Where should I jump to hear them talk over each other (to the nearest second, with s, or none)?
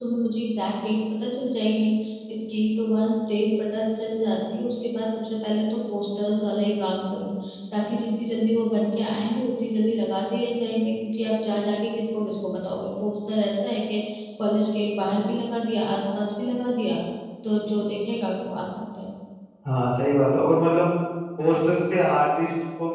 none